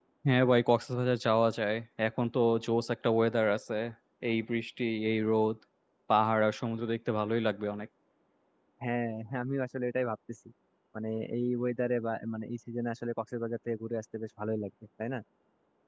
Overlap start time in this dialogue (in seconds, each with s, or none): none